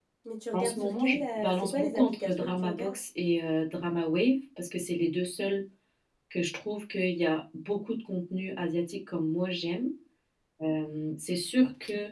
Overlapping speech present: Yes, from 0.5 s

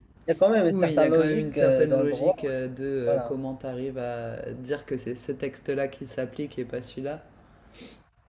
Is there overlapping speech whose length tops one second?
Yes, from 0.7 s

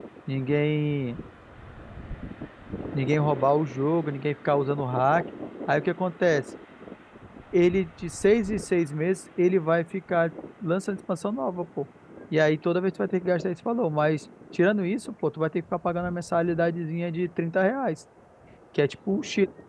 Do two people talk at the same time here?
No

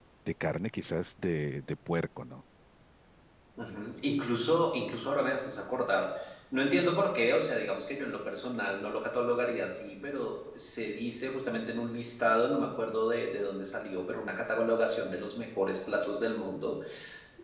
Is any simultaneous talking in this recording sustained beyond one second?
No

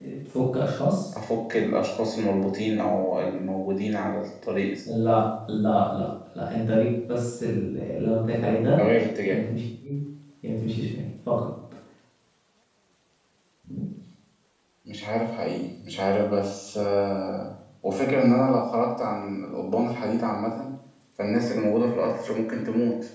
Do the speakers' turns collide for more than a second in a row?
No

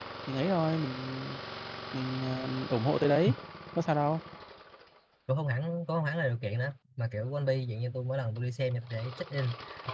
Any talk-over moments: No

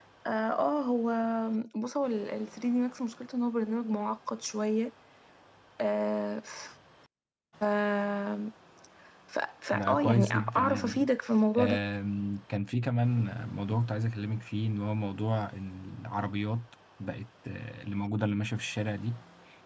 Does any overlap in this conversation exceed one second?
Yes, from 9.7 s

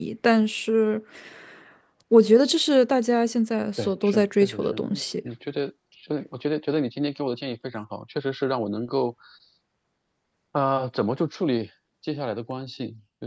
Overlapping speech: Yes, from 3.8 s

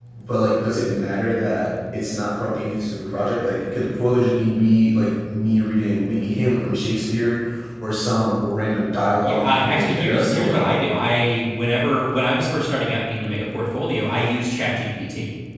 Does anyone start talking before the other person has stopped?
Yes, from 9.2 s

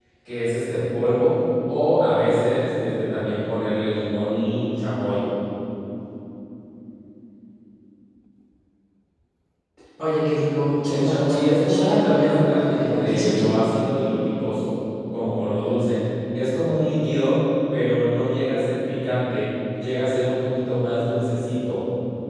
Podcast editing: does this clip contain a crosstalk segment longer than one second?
Yes, from 10.9 s

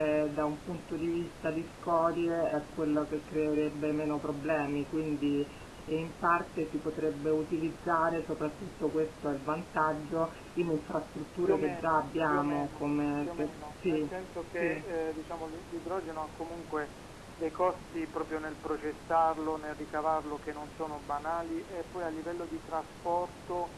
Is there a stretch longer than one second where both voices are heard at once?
Yes, from 11.4 s

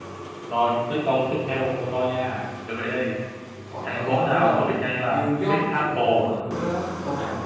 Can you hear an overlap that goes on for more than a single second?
Yes, from 3.8 s

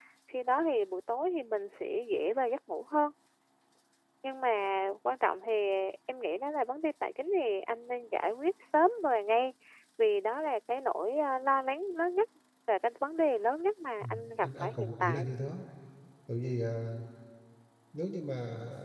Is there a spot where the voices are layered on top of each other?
Yes, from 14.0 s

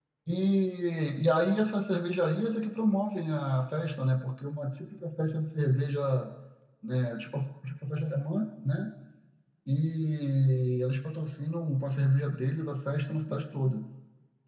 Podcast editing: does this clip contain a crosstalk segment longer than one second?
No

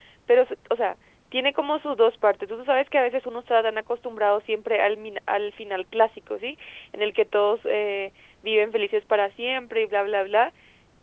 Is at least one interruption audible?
No

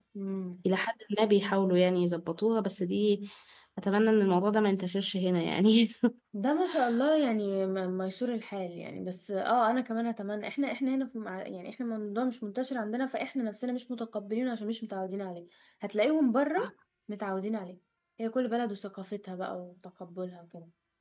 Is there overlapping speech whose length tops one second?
No

